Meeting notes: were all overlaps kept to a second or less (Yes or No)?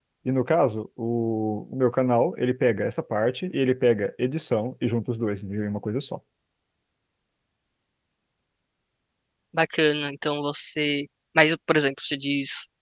Yes